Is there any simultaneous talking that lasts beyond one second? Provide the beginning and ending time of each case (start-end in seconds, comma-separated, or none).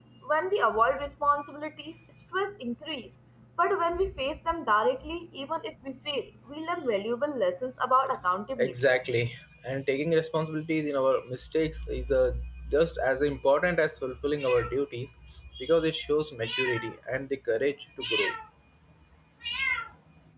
none